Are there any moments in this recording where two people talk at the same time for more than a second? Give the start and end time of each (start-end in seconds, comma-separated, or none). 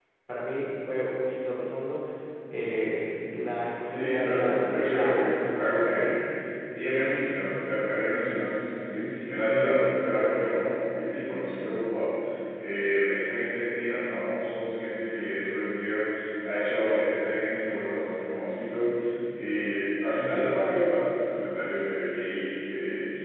3.9-6.1